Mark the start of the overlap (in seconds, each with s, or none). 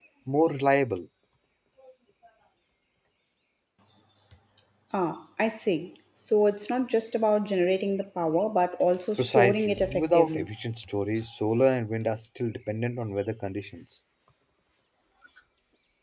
9.2 s